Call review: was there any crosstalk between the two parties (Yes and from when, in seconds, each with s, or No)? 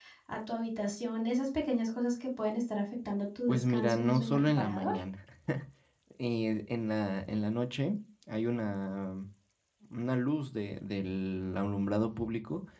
Yes, from 3.5 s